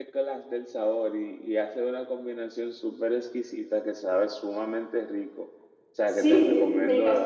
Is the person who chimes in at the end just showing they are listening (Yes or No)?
No